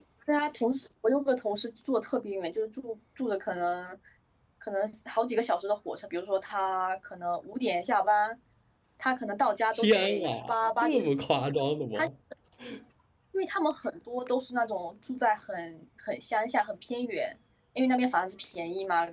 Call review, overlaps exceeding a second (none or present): present